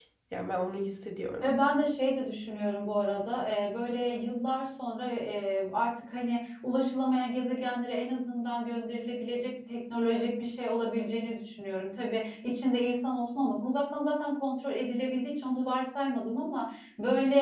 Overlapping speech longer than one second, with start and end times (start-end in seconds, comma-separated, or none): none